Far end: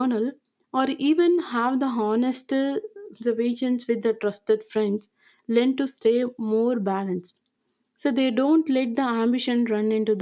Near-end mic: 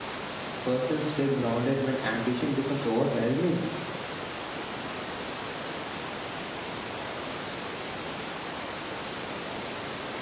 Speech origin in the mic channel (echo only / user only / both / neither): user only